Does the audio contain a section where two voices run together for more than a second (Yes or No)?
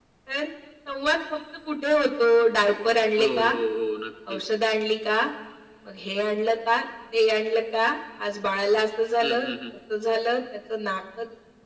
No